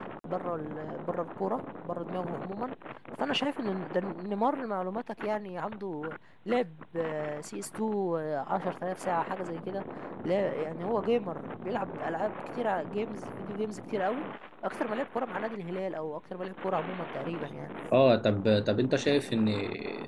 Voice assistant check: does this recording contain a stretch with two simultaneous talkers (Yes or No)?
No